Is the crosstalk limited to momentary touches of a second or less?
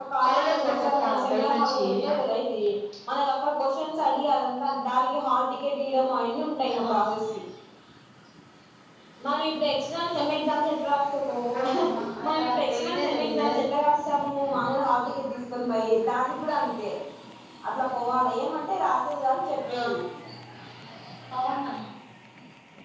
No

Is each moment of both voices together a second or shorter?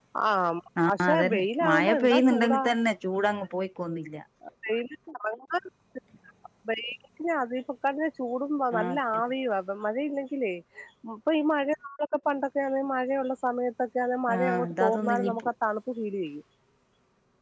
No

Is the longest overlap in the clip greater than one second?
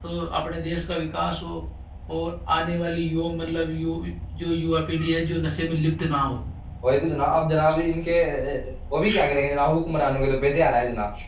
No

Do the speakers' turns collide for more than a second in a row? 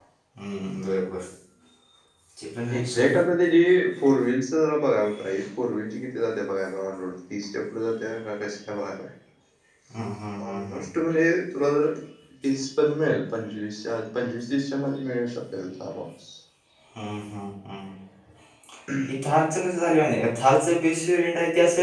No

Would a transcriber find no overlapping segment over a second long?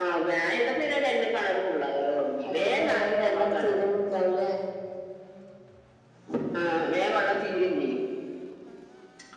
No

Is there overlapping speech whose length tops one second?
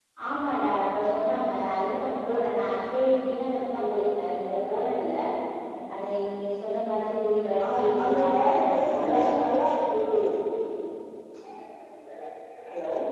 Yes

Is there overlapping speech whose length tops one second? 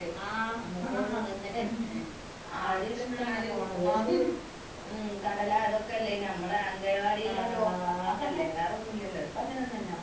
Yes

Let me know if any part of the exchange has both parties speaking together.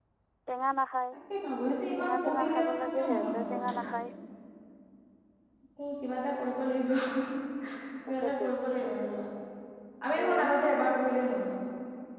Yes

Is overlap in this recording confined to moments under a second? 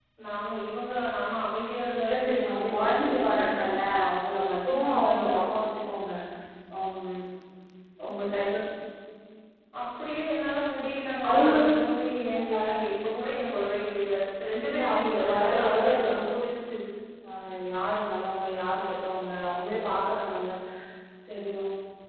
No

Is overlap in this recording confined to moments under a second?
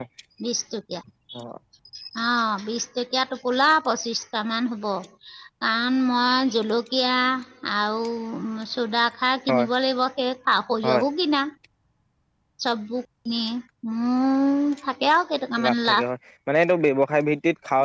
Yes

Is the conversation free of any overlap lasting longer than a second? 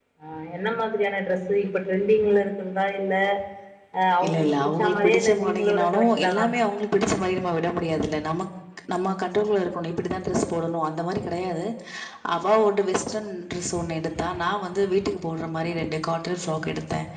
No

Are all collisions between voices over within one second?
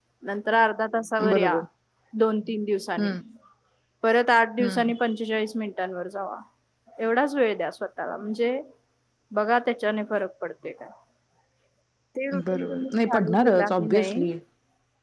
No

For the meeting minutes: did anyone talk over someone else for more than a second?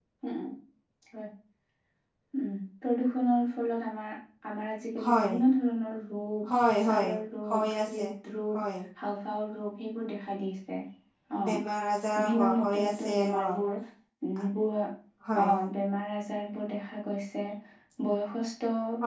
Yes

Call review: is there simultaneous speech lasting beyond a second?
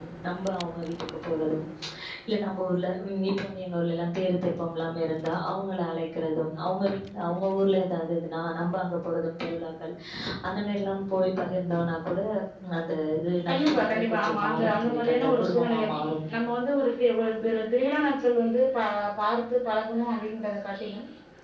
Yes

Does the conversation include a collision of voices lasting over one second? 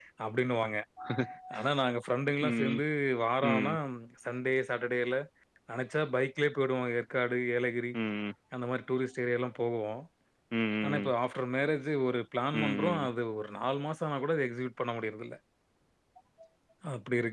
No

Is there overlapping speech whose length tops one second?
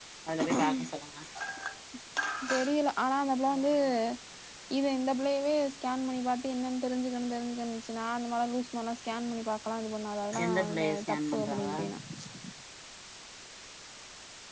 Yes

